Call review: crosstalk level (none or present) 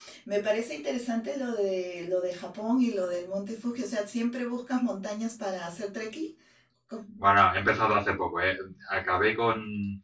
none